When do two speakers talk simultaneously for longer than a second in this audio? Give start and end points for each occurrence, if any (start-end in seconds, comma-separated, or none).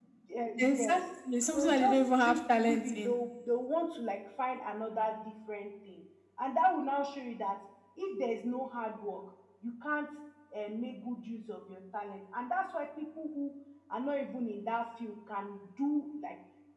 1.5-3.1